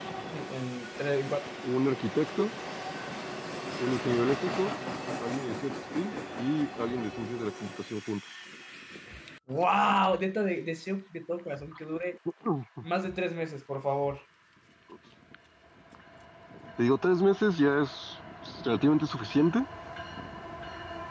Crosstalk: none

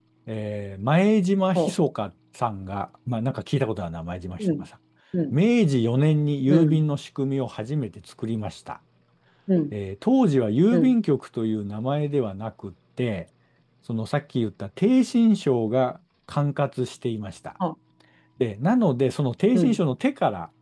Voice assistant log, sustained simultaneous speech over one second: none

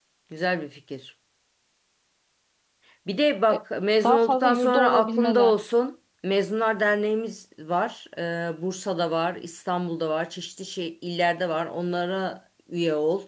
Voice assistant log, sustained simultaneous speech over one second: present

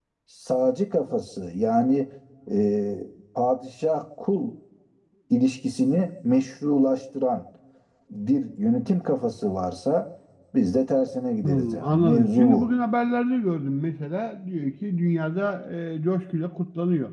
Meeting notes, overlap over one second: present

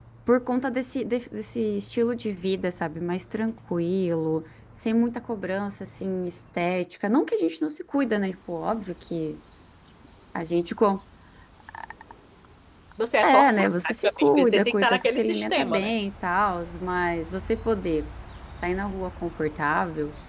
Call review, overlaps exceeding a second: present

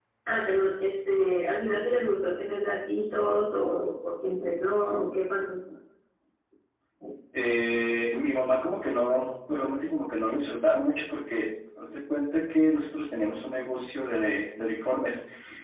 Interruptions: none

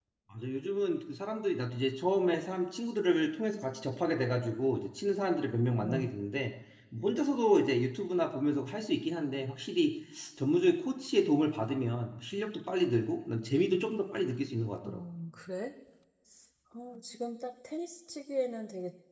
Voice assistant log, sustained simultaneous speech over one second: none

